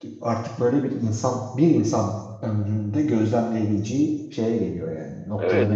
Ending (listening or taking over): taking over